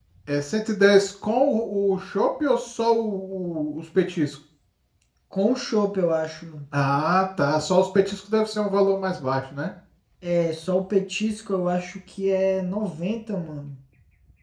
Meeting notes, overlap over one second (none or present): none